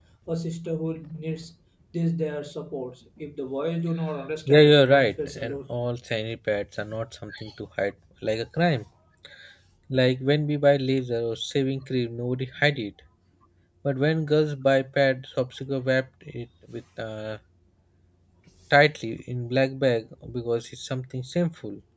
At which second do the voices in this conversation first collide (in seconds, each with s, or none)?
4.5 s